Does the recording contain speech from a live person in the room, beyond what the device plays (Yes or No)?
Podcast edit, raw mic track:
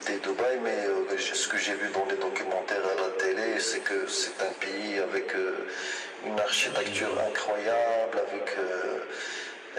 Yes